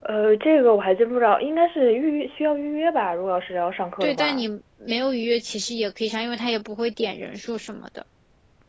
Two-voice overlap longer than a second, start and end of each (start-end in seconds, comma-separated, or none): none